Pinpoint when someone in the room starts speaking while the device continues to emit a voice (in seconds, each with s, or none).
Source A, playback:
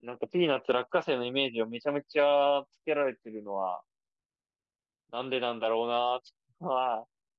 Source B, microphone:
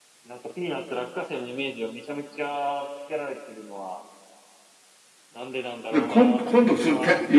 5.9 s